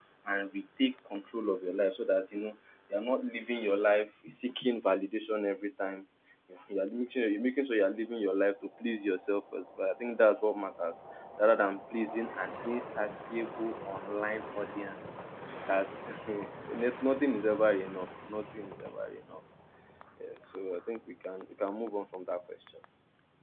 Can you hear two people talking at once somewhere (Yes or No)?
No